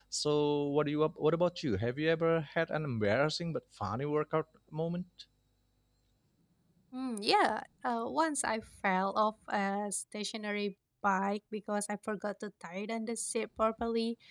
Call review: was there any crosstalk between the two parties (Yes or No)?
No